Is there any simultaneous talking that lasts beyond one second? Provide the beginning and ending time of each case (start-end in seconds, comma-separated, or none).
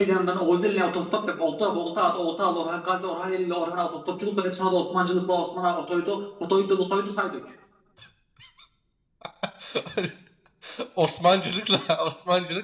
none